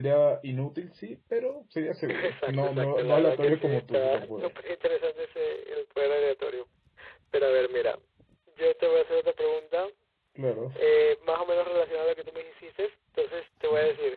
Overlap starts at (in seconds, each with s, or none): 2.1 s